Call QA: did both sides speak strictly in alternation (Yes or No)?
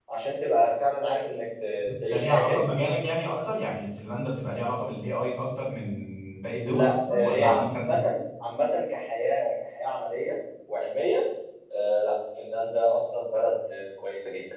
No